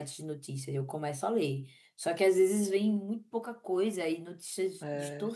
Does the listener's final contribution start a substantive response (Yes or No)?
No